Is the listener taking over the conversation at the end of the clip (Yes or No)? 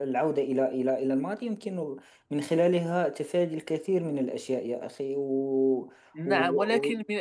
Yes